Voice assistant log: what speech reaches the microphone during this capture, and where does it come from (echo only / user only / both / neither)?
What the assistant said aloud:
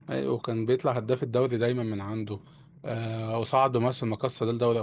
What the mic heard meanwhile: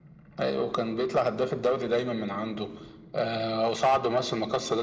echo only